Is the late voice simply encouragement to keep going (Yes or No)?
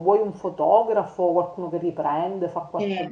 No